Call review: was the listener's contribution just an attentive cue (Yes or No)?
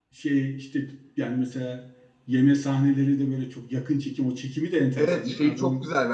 No